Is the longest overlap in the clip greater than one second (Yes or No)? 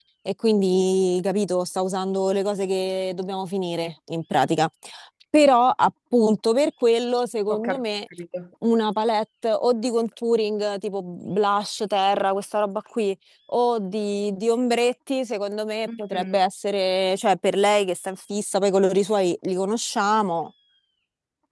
No